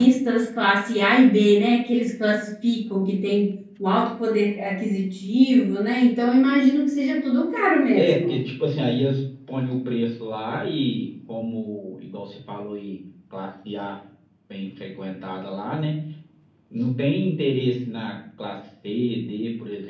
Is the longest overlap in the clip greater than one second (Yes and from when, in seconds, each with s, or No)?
No